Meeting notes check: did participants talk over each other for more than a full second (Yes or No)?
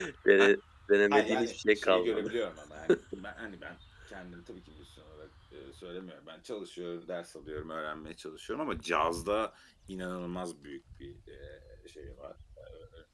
Yes